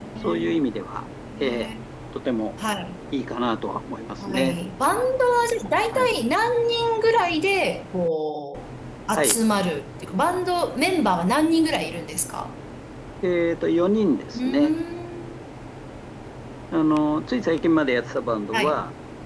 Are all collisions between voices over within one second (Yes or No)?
Yes